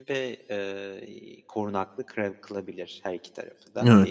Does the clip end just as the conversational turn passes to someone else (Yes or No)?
Yes